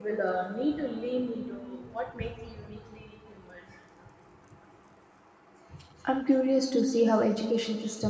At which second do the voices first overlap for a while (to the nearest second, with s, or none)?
none